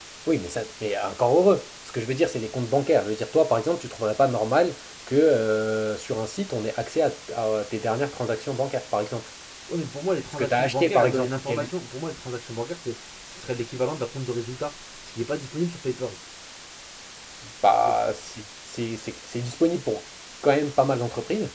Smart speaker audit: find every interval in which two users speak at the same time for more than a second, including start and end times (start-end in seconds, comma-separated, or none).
10.3-11.7